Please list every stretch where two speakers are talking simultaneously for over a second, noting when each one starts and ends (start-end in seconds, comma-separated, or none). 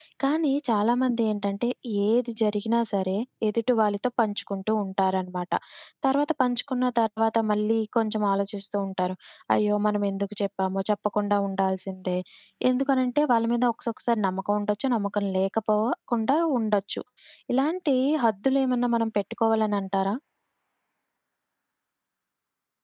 none